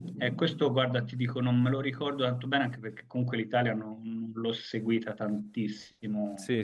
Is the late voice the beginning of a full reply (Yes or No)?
Yes